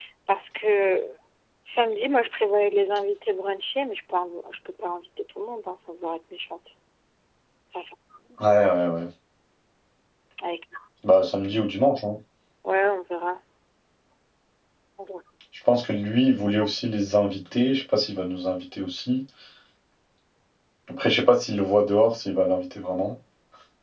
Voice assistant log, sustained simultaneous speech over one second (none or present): none